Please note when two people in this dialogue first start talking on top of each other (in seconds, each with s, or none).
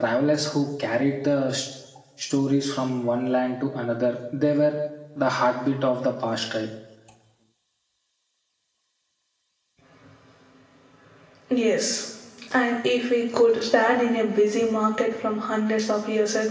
none